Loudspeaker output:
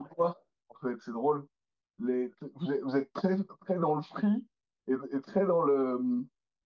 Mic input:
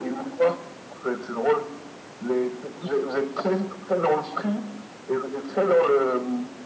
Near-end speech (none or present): none